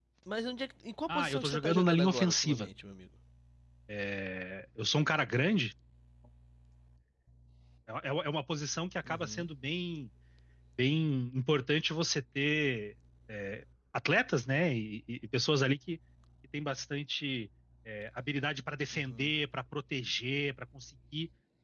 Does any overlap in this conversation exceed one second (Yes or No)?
Yes